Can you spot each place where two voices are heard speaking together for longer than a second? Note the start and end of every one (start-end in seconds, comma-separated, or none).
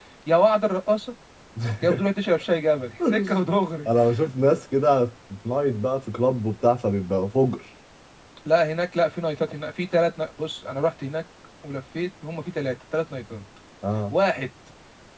none